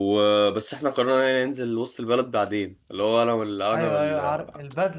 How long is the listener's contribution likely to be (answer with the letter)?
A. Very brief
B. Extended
B